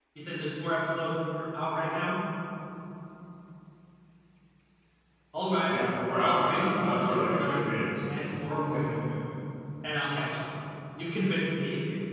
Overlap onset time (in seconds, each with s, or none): 6.2 s